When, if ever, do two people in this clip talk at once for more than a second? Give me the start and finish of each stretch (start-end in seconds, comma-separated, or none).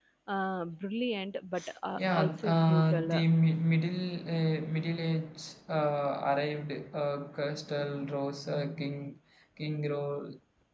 2.0-3.2